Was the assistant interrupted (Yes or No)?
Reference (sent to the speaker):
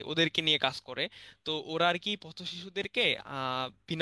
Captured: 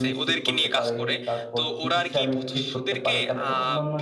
Yes